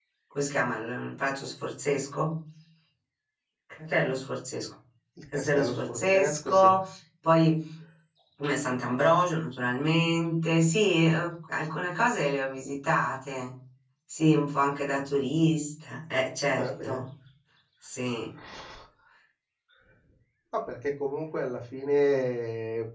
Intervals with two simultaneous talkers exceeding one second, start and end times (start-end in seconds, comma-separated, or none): 5.4-6.7